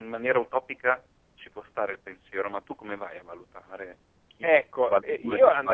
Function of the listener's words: taking over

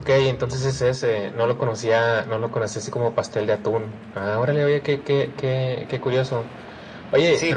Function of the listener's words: taking over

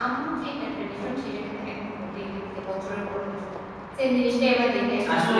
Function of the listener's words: taking over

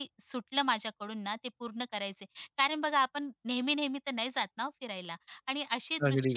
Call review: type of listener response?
listening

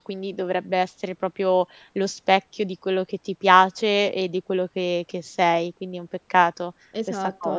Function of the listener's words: taking over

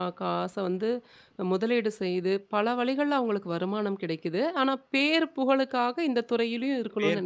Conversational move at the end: taking over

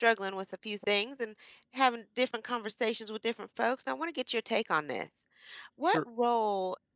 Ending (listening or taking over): listening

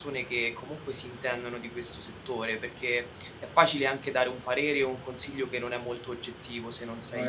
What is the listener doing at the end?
listening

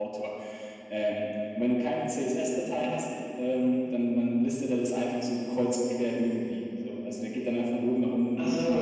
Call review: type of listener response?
listening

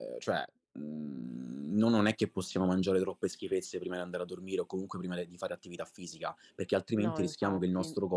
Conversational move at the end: listening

